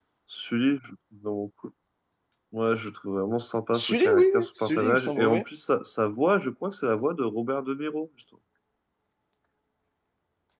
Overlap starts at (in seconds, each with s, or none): 3.7 s